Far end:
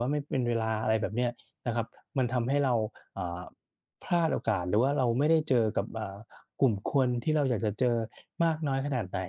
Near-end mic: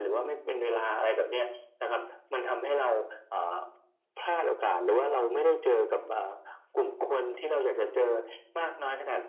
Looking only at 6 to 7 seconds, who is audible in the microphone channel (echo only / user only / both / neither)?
echo only